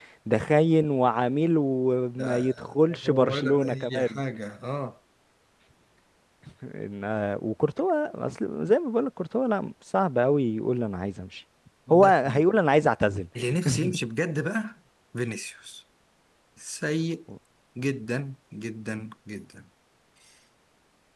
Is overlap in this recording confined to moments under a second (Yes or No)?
No